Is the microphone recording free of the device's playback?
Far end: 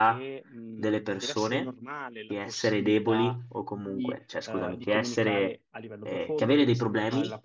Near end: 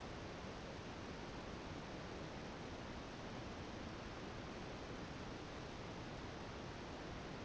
Yes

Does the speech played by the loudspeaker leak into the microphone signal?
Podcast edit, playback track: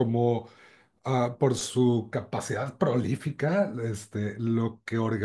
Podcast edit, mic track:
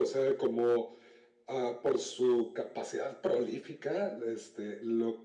Yes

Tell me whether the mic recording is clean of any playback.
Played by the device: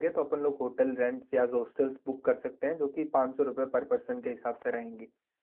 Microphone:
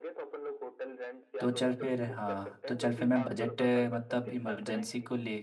No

